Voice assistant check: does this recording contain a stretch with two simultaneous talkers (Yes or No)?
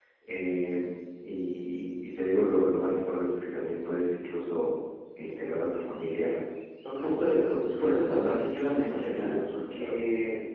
Yes